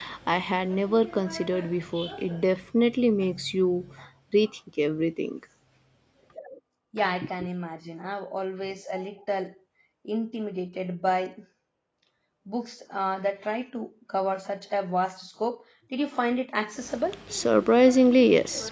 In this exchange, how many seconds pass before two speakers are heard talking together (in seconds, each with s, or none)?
none